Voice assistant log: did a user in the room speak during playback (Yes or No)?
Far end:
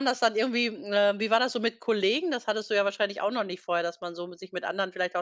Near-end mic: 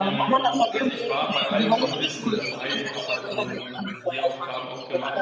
Yes